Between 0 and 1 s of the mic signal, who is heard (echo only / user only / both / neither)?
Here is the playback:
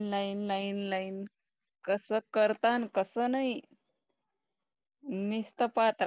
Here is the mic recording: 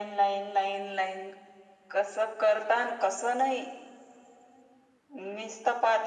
echo only